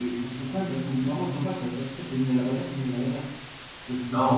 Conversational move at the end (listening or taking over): taking over